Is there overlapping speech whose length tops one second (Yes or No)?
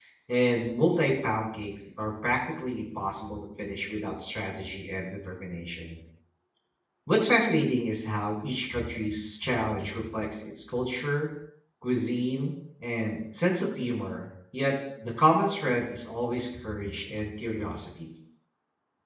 No